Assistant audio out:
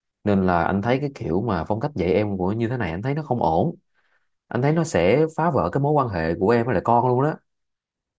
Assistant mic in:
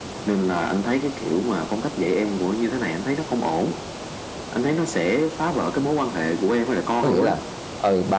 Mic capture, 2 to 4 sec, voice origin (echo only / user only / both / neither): echo only